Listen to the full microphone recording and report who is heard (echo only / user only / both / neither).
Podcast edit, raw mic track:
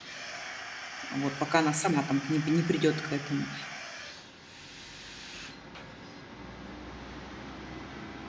user only